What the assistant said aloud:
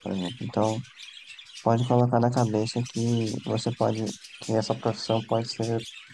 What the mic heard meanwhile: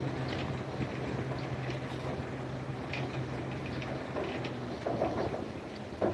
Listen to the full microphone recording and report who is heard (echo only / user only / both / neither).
neither